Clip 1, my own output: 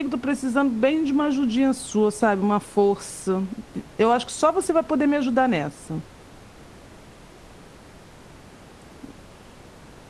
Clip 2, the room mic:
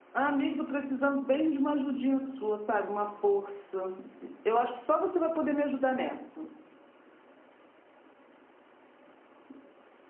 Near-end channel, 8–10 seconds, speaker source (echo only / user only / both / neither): neither